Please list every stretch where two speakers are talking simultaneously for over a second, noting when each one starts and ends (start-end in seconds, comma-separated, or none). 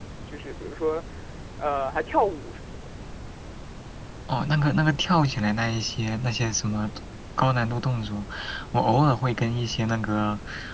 none